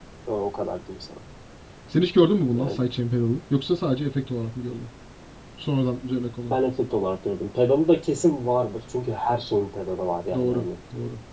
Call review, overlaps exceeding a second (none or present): none